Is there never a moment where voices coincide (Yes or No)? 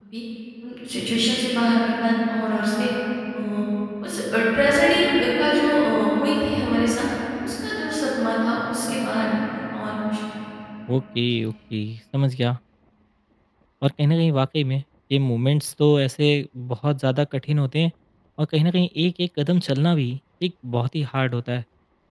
Yes